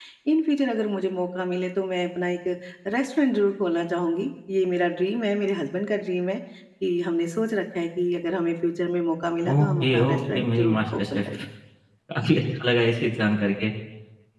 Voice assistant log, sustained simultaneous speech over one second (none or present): present